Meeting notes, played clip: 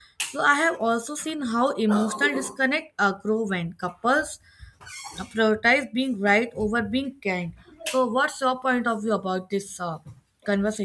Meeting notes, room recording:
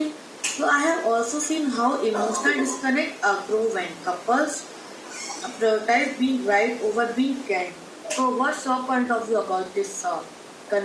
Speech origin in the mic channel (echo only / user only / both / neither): echo only